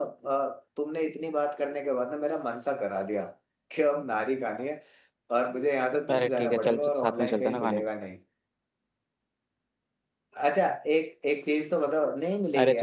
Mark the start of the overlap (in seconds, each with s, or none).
6.1 s